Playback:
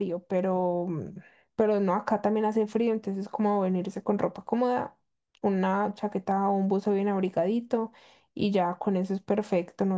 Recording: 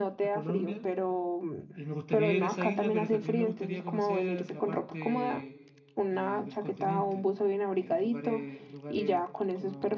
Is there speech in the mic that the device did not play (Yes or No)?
Yes